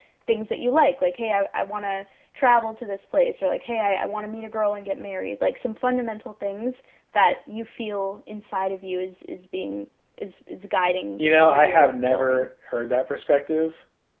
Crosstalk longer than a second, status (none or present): present